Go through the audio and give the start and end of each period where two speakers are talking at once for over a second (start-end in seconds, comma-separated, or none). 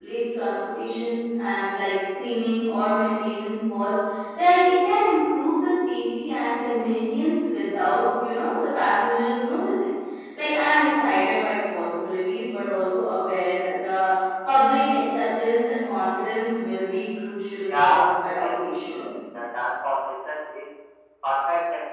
17.6-19.1